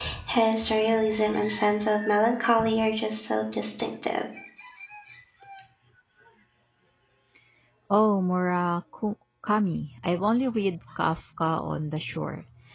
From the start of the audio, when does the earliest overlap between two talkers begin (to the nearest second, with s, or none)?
none